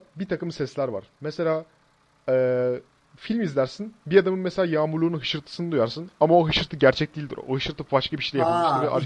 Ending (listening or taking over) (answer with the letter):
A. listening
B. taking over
B